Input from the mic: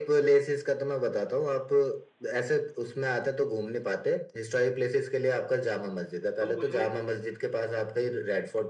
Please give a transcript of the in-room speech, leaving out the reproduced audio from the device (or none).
तुम मुझे